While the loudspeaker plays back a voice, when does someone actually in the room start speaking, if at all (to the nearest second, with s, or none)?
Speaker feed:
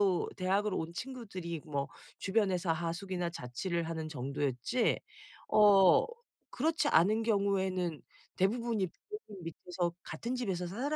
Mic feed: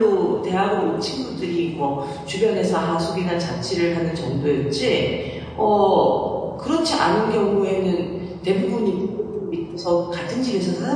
none